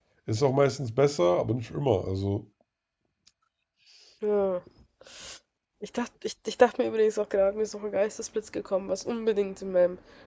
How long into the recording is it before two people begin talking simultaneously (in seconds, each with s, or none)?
none